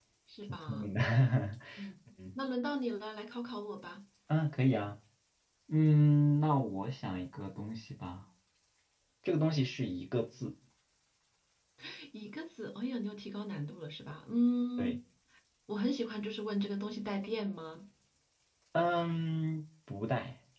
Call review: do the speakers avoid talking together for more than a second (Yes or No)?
Yes